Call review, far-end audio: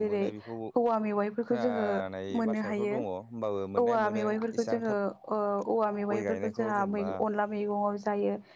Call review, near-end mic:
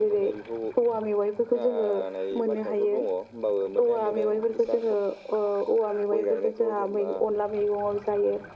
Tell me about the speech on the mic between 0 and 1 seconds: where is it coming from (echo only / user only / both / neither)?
echo only